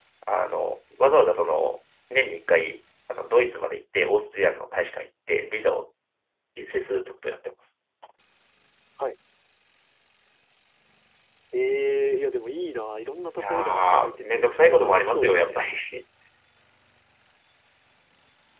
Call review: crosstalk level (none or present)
present